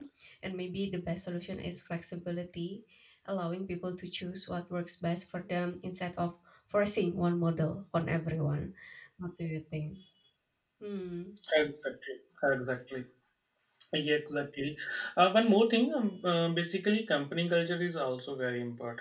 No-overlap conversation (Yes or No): Yes